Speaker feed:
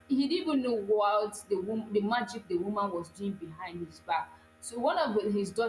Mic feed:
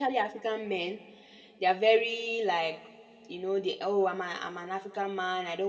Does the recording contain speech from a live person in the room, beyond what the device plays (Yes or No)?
Yes